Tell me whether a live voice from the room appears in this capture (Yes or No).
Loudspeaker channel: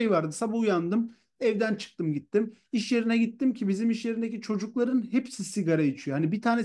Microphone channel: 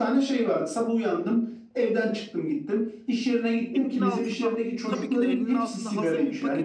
Yes